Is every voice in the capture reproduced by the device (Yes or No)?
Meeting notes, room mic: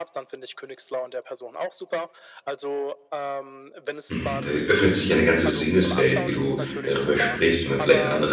No